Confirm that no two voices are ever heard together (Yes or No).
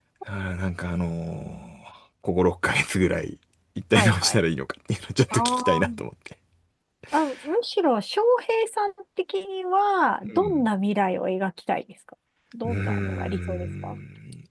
No